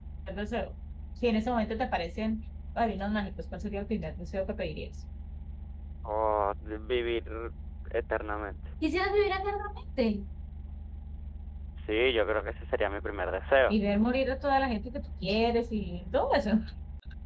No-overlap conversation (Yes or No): Yes